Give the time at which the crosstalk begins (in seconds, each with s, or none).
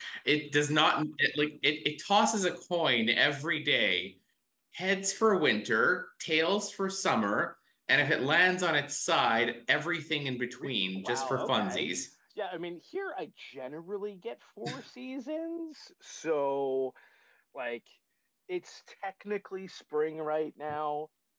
10.5 s